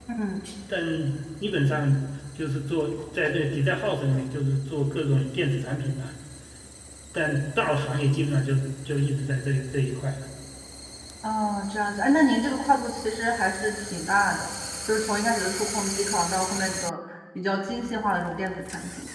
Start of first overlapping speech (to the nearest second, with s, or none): none